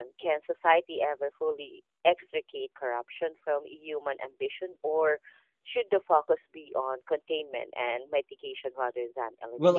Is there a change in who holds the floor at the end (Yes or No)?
Yes